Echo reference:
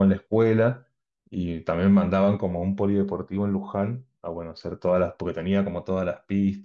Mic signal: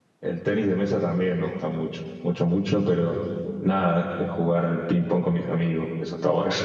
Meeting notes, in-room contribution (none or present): present